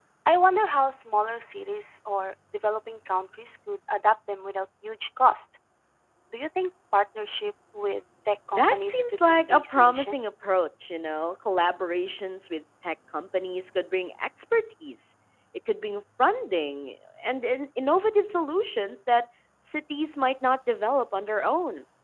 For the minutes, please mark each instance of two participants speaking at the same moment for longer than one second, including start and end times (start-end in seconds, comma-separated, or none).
8.5-10.2